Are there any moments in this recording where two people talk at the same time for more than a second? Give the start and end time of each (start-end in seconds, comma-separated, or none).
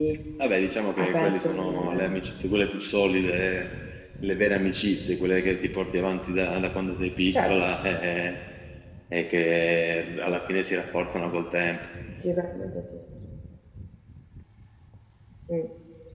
1.0-2.2